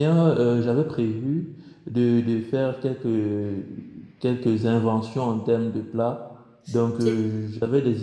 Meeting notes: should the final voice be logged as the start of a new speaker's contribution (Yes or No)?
No